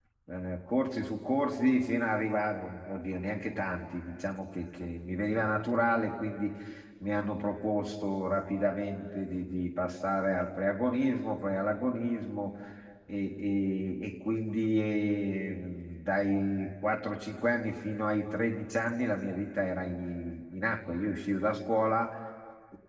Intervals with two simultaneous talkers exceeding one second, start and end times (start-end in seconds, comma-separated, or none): none